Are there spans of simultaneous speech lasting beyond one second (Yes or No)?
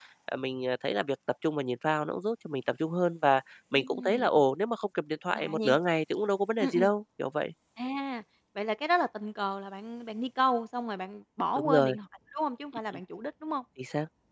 No